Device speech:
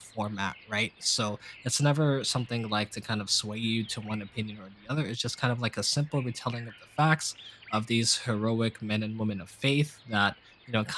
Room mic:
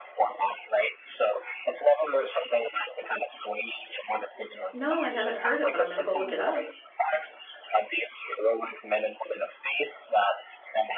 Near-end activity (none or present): present